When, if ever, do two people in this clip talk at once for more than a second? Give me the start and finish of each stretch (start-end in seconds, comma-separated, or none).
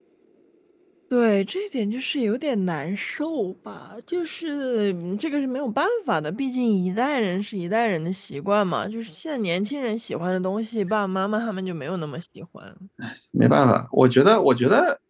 none